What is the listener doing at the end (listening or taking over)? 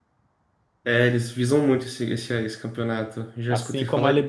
taking over